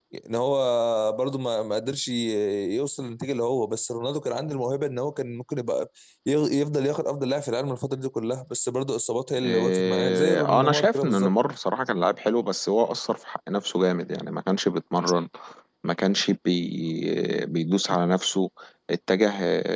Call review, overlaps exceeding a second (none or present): present